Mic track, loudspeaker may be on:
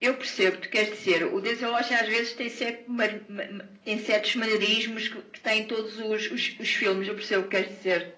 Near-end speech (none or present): none